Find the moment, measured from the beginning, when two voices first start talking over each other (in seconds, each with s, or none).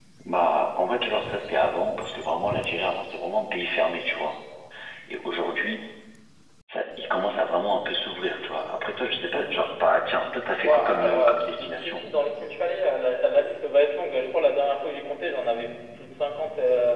10.6 s